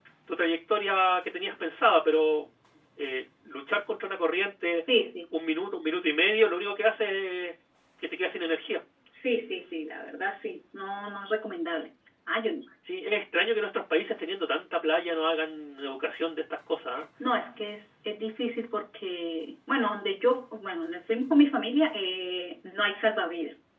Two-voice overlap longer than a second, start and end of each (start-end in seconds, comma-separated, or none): none